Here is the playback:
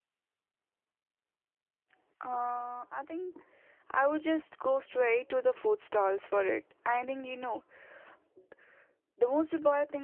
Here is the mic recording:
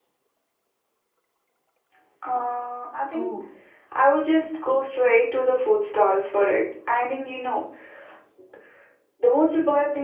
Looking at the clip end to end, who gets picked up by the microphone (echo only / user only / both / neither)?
both